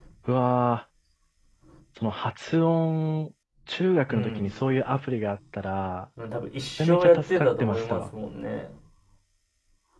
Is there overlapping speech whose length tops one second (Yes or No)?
Yes